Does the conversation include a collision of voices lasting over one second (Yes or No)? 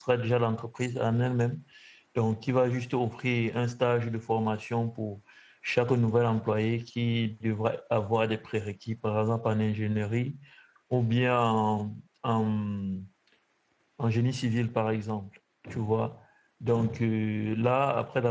No